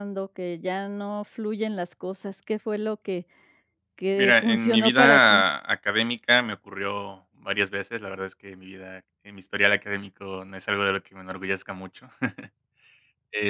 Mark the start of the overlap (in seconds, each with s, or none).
4.2 s